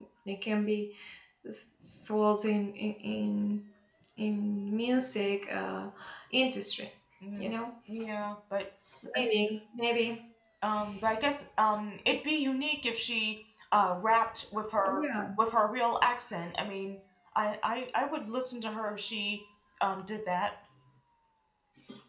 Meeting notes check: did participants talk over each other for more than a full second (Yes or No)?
No